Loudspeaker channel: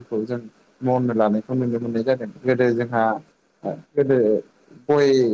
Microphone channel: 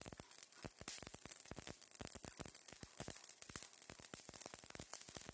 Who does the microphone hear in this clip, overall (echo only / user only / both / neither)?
neither